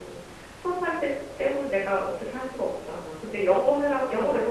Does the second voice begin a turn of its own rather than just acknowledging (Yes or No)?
No